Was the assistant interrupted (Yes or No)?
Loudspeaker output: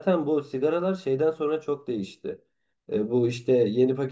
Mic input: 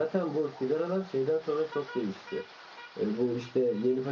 No